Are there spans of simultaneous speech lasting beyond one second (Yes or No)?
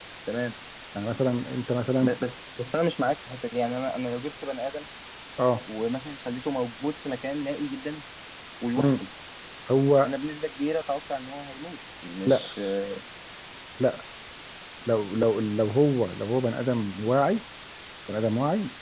No